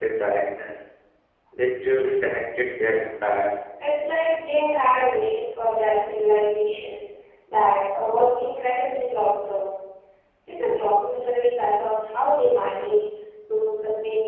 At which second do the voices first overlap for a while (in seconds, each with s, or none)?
none